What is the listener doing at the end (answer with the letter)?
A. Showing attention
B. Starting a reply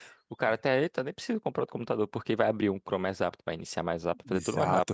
B